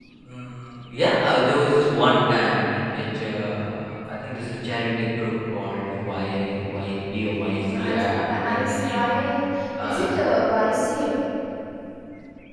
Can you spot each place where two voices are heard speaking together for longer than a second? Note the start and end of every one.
7.8-9.0

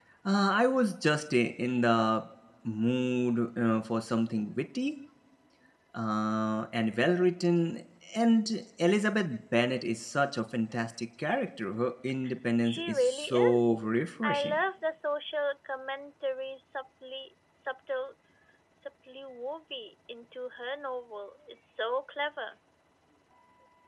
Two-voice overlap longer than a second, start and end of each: 12.6-14.6

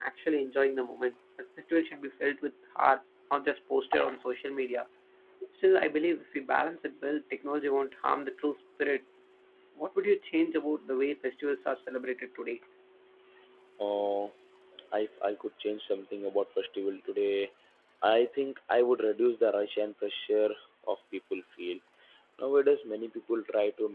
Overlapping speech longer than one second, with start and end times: none

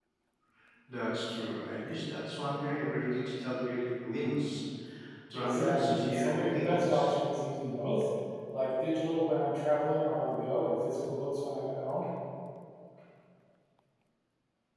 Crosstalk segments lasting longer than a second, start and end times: 5.3-7.1

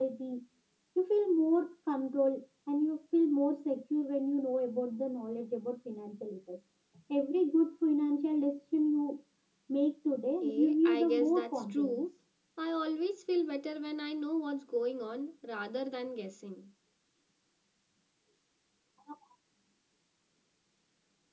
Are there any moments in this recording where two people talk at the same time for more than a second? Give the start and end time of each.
10.4-12.0

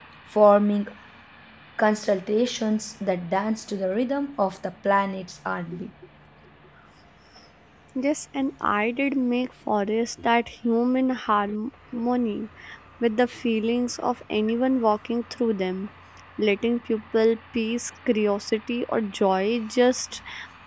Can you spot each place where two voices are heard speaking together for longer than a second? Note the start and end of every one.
none

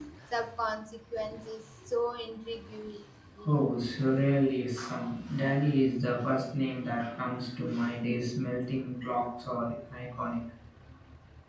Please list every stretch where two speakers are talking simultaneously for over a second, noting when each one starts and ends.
none

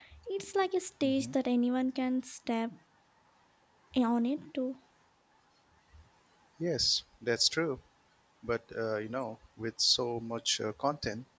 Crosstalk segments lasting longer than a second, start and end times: none

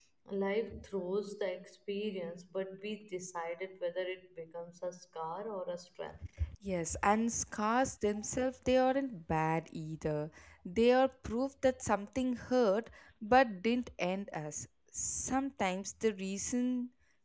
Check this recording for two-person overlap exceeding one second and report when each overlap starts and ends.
none

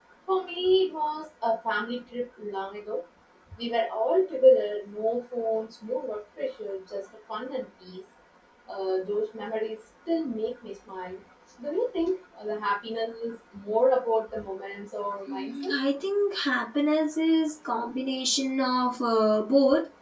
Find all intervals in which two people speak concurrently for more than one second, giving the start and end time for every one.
none

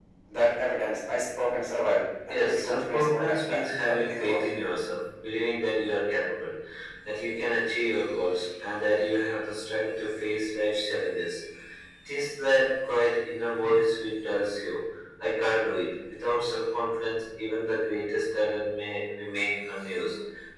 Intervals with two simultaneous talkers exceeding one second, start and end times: 2.3-4.4

